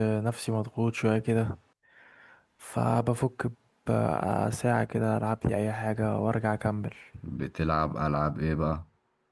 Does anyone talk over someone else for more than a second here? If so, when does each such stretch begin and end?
none

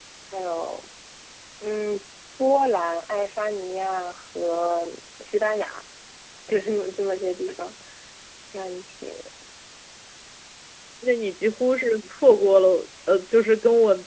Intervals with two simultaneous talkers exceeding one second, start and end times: none

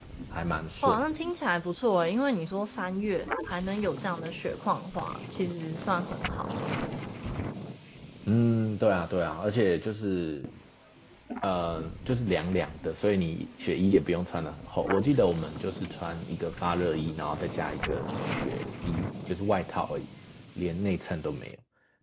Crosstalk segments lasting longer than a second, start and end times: none

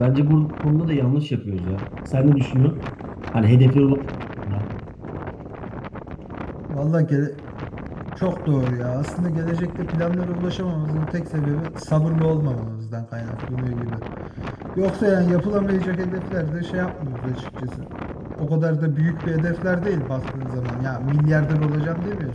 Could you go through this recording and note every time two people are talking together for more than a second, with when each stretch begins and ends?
none

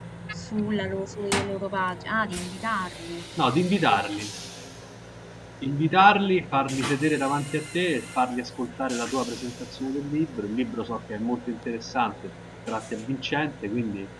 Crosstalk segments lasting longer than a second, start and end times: none

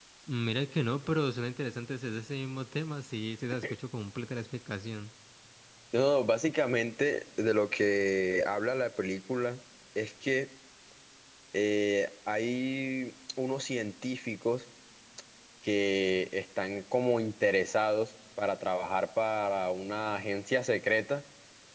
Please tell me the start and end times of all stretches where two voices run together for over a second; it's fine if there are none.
none

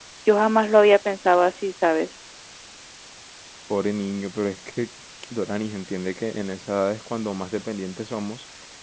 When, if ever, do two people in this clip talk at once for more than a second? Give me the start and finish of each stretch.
none

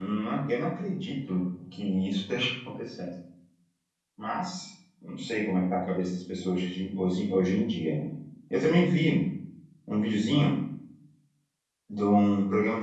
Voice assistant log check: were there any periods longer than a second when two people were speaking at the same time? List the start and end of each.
none

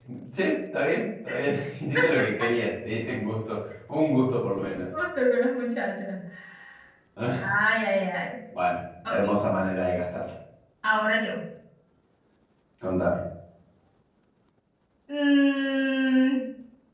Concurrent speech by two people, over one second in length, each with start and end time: none

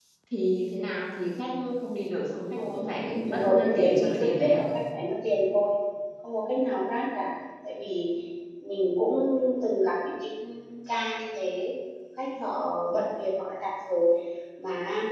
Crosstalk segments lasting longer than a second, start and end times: 3.3-4.6

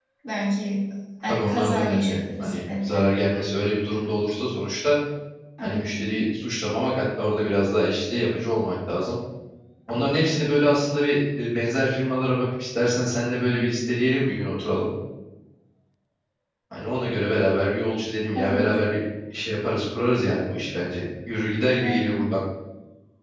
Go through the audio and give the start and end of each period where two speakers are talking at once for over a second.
1.2-3.1

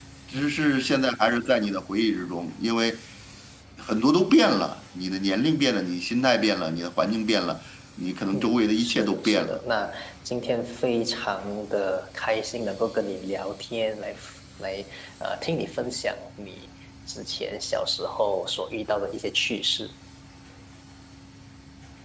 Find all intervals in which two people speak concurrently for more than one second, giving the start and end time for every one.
8.3-9.6

